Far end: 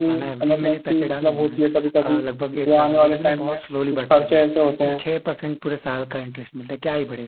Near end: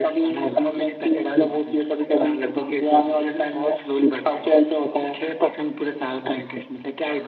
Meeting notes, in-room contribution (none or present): none